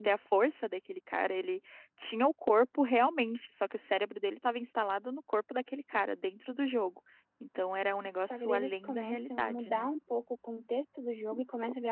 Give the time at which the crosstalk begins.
8.3 s

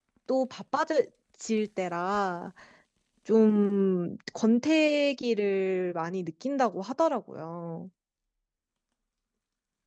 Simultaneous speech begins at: none

